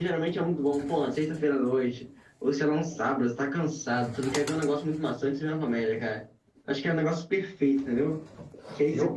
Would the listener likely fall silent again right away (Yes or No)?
Yes